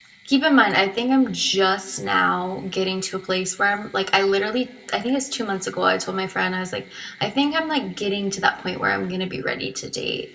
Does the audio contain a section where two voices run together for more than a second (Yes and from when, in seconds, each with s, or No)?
No